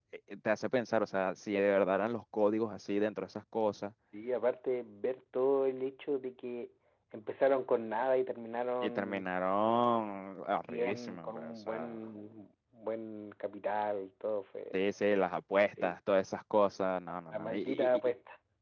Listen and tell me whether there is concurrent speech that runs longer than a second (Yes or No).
Yes